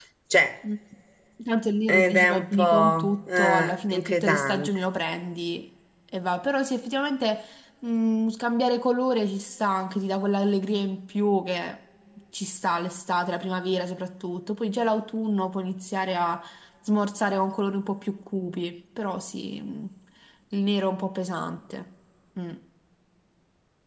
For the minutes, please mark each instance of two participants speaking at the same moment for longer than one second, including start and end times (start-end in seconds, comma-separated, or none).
1.9-4.7